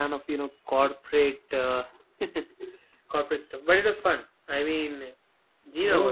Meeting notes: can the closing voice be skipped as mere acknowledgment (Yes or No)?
No